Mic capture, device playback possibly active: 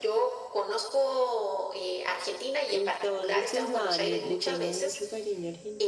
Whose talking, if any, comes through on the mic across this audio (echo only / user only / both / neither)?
both